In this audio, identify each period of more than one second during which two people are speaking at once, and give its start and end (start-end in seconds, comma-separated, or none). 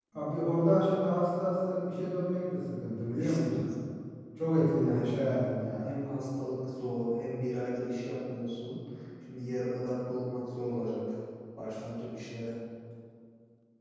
none